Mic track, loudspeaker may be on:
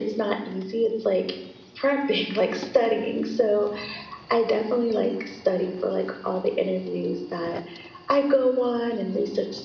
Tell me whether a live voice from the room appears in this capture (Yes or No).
No